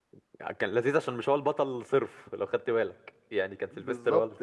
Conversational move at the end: taking over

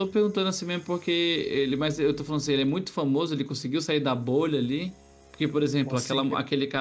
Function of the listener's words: listening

